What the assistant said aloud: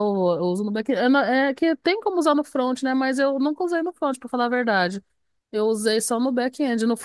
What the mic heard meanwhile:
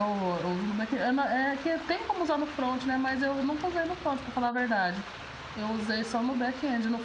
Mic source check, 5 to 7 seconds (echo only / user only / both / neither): echo only